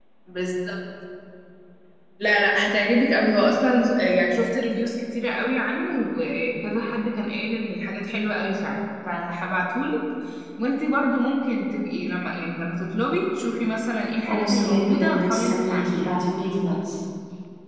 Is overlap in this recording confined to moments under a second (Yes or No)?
No